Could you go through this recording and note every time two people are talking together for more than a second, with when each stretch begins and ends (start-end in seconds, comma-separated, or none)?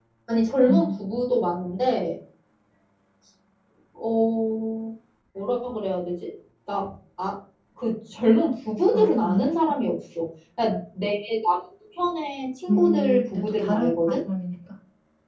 12.7-14.2